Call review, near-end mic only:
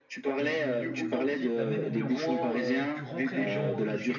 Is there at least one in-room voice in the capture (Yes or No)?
Yes